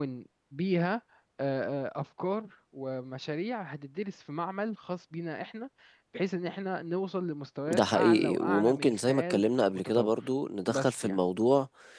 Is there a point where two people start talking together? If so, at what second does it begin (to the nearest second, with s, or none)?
8 s